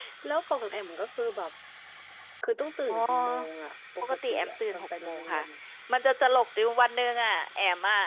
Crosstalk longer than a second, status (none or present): present